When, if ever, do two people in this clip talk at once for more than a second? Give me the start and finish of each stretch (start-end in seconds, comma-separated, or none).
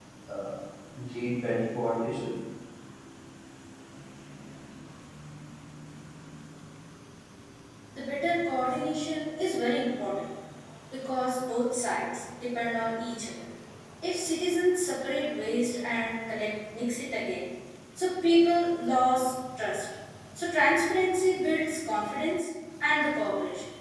none